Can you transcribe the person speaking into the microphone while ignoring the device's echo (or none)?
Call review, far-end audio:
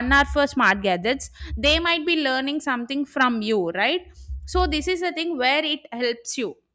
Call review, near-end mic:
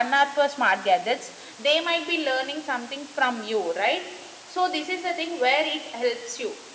none